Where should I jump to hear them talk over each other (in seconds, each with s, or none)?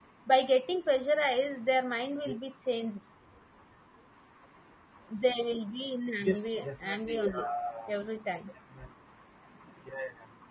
6.2 s